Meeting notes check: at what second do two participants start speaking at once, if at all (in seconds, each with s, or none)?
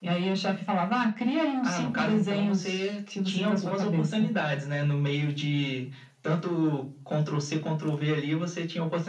1.6 s